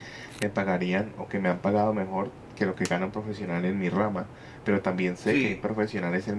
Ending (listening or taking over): listening